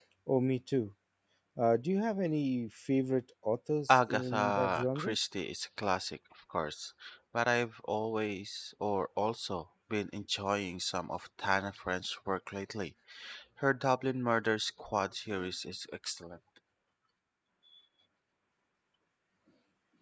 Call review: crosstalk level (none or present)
present